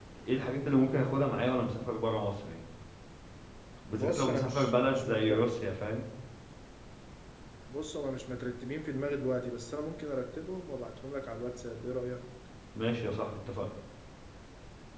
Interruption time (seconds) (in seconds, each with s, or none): 3.9 s